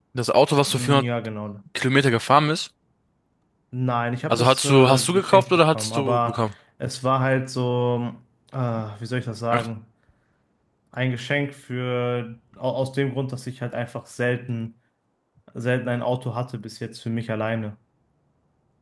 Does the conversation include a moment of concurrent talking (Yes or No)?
Yes